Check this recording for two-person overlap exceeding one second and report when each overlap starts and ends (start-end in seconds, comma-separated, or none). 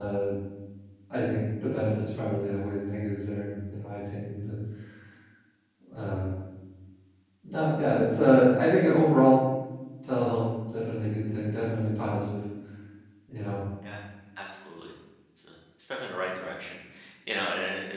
none